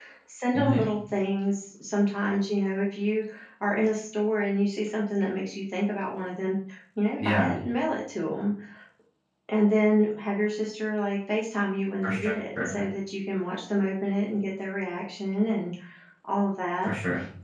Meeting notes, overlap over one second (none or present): none